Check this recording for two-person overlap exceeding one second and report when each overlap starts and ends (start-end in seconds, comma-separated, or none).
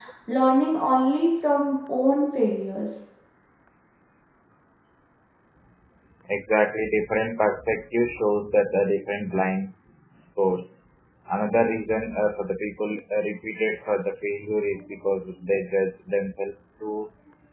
none